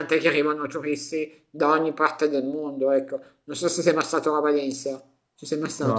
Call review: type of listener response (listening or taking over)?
taking over